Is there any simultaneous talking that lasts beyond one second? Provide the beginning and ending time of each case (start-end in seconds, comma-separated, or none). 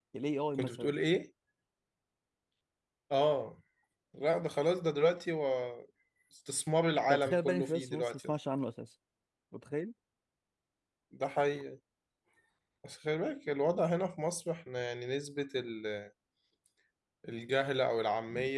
7.1-8.3